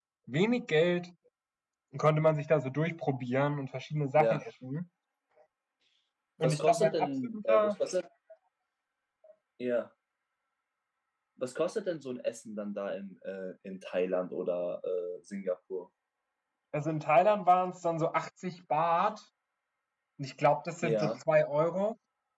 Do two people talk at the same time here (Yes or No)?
Yes